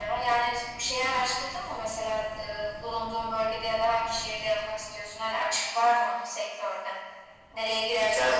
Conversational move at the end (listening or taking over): listening